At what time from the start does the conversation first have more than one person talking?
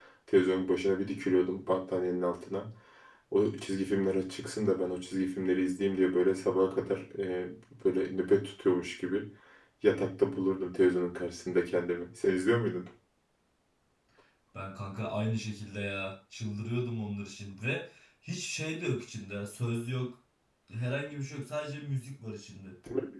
none

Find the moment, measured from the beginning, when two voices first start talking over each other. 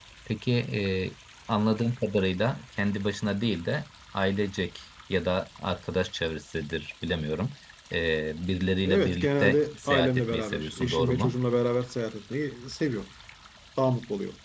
8.8 s

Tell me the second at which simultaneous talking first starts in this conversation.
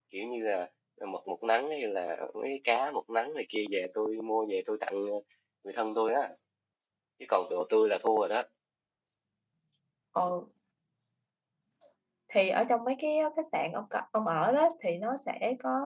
none

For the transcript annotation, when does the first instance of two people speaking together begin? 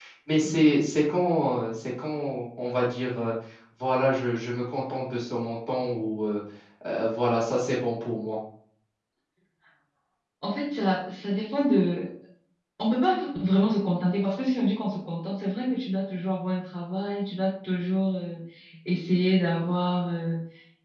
none

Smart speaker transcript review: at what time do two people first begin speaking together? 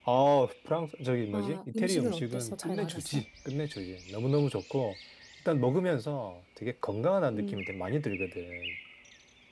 1.3 s

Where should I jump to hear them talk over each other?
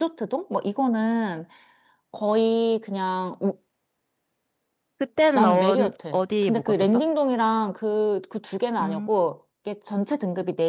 5.3 s

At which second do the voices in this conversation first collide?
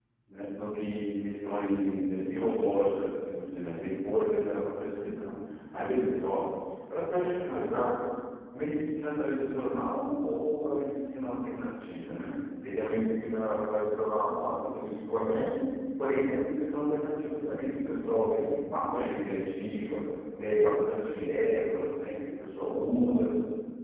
none

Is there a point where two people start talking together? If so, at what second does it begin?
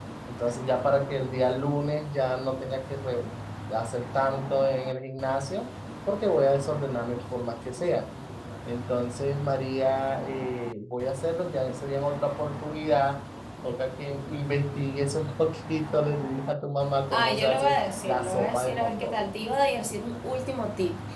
17.1 s

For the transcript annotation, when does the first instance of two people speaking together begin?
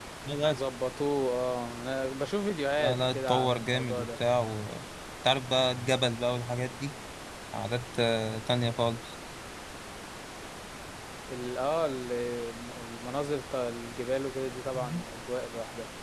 2.8 s

